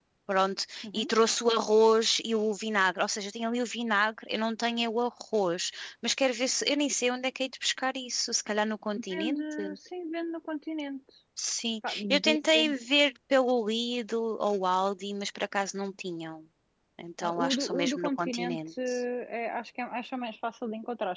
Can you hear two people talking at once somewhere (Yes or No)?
Yes